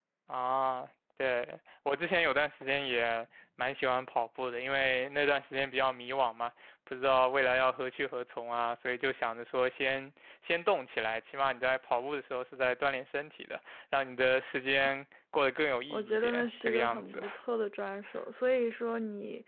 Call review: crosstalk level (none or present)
present